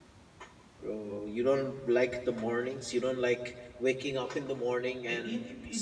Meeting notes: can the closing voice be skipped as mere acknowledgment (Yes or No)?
No